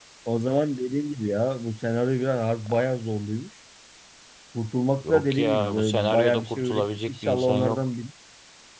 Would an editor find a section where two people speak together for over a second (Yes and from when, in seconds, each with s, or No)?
Yes, from 5.1 s